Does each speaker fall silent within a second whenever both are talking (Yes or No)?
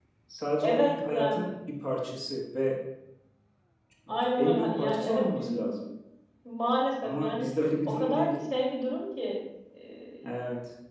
No